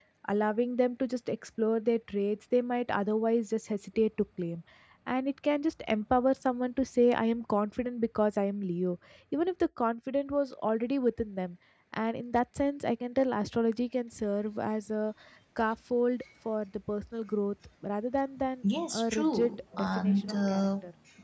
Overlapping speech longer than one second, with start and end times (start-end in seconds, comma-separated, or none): 18.9-20.7